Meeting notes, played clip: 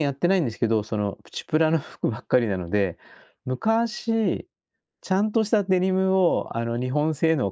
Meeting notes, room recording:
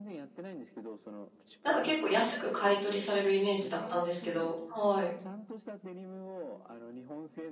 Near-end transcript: なんか結構安く買い取りされるイメージだったんですけど、はい。

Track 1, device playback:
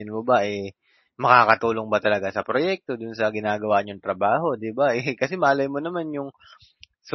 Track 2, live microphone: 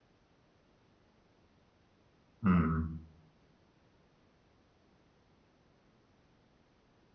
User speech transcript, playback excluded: Mm.

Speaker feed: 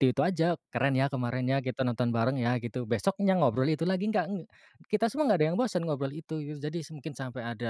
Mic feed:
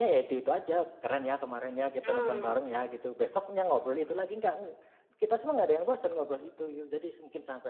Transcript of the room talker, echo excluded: Mmm.

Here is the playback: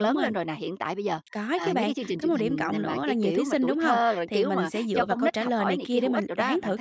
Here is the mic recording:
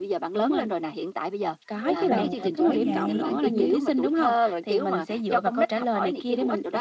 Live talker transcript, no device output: Đúng rồi, bởi vậy, ừm.

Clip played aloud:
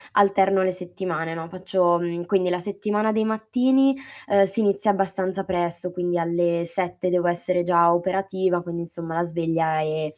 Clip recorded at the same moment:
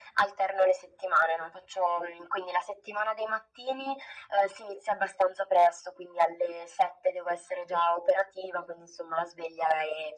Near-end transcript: none

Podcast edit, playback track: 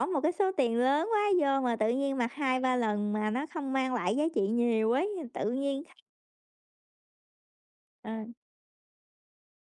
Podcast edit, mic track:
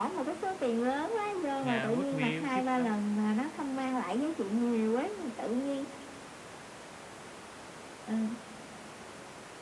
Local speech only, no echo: yeah Goodwill, thrift shop,

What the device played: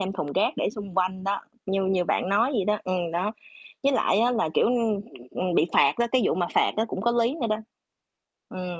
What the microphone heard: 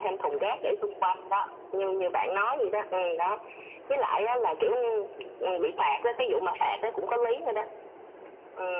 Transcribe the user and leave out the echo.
none

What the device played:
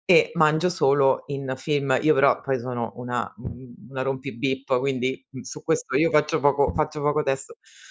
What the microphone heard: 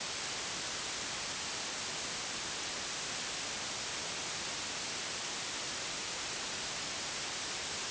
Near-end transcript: none

